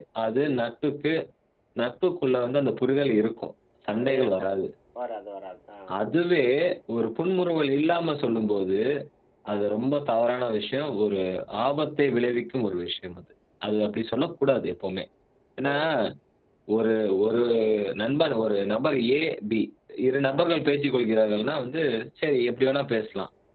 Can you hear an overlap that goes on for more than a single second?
No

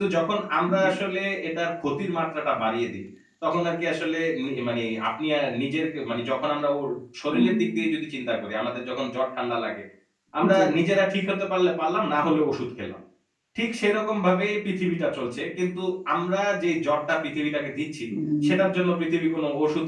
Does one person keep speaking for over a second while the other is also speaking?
No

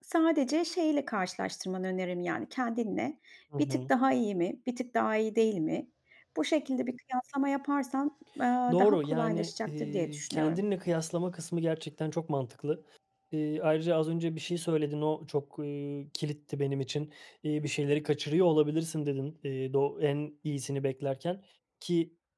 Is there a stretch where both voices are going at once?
Yes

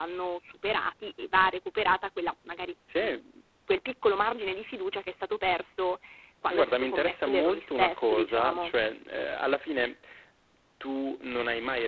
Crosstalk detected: Yes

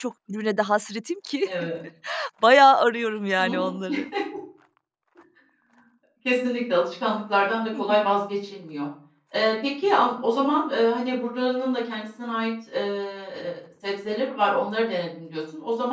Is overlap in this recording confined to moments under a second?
Yes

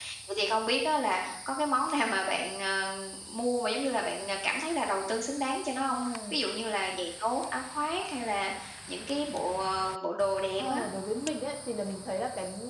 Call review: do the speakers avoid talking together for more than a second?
Yes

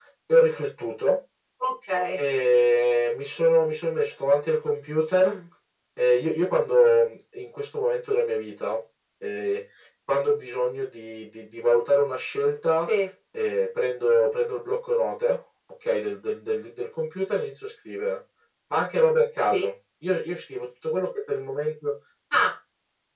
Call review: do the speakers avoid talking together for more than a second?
Yes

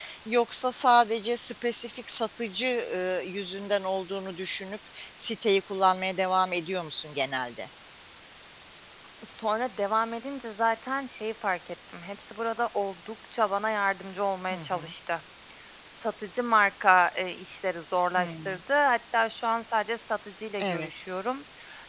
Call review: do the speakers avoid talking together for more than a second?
Yes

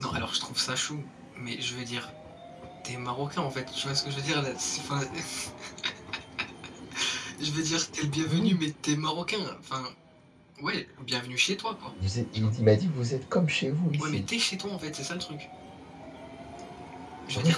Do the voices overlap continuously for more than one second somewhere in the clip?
No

